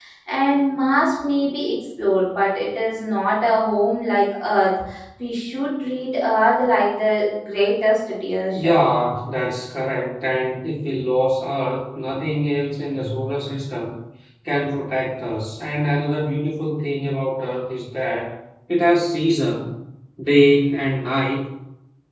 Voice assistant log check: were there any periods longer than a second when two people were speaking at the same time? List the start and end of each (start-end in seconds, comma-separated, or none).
none